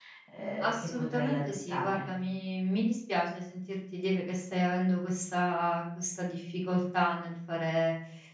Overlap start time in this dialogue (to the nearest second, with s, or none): 1 s